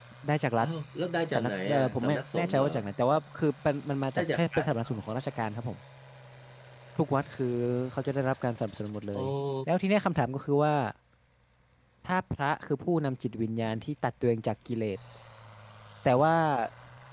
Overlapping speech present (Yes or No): Yes